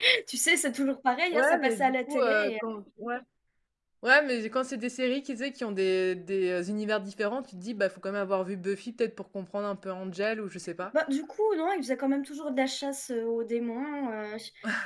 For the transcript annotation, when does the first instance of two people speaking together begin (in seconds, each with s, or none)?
1.3 s